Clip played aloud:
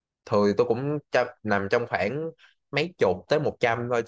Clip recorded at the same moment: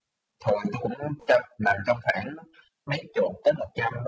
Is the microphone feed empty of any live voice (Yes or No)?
Yes